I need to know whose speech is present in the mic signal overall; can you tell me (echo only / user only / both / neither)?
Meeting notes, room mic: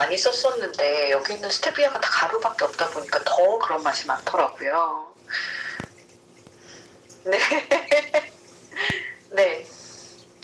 echo only